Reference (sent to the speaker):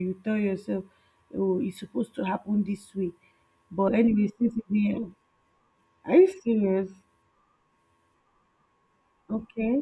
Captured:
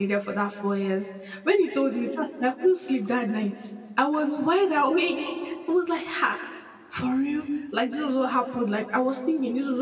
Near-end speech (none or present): present